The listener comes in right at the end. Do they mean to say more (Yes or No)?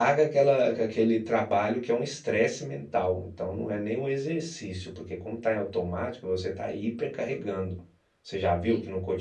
No